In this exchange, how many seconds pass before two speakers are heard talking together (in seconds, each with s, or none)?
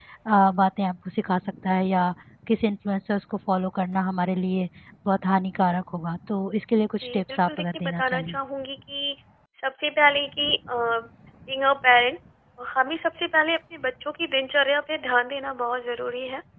7.0 s